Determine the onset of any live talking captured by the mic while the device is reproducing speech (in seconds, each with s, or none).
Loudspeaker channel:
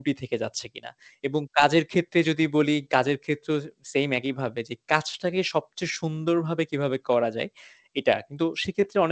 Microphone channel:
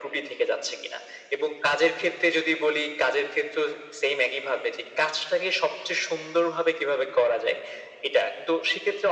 none